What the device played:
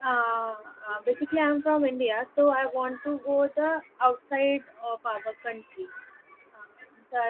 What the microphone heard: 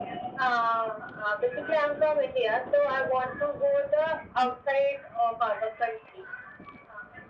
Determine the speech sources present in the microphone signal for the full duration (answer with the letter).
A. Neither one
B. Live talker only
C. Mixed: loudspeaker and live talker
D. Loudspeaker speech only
D